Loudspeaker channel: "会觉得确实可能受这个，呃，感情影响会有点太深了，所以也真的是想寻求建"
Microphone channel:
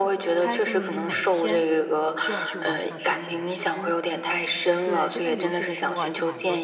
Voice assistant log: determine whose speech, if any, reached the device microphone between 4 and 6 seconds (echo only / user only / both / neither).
both